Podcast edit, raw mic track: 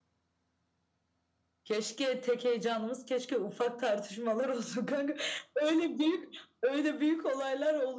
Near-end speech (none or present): none